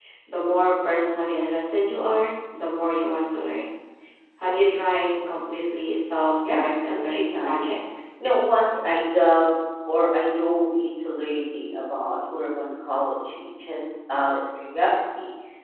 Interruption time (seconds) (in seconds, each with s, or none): 6.4 s